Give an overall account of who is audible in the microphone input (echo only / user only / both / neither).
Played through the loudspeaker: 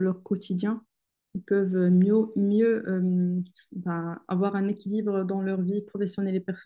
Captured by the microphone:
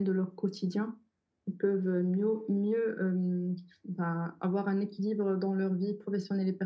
echo only